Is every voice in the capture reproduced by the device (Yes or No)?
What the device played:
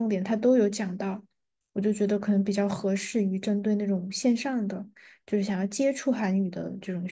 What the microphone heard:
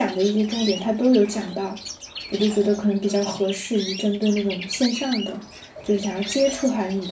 Yes